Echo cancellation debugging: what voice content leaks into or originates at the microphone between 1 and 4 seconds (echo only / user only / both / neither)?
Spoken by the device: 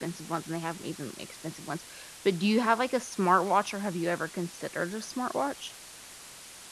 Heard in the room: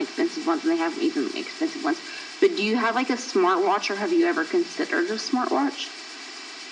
echo only